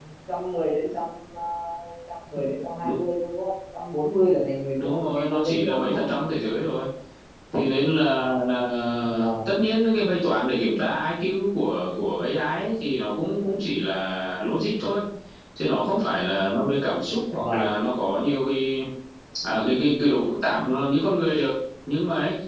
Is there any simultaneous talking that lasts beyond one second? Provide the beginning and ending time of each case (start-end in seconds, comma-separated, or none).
4.8-6.0